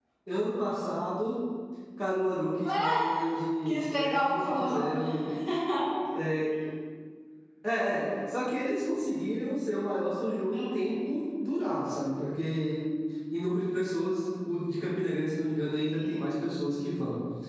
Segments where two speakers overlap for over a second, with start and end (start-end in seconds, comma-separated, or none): 3.7-4.9